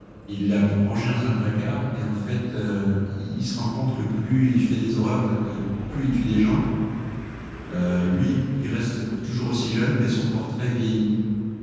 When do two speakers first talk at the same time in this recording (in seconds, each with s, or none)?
none